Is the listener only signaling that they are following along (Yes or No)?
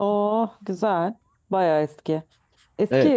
Yes